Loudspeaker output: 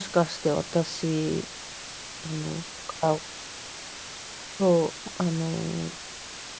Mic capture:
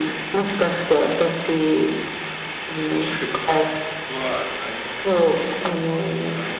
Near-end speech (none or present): present